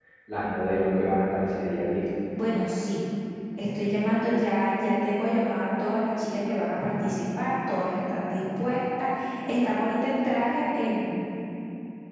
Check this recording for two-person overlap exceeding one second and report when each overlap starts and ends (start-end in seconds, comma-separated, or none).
none